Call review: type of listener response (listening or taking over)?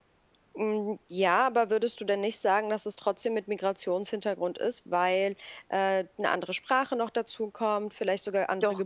listening